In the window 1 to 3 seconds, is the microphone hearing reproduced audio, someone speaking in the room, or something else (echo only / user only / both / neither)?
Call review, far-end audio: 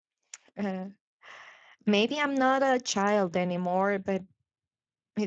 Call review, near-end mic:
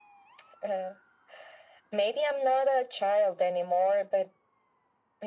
echo only